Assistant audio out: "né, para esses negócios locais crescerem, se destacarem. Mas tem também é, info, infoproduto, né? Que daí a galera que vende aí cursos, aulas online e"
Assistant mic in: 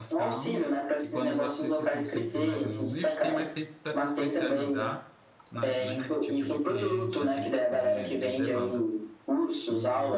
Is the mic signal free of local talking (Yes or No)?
No